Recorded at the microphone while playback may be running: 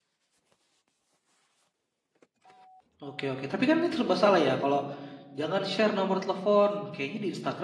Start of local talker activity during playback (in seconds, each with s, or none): 3.0 s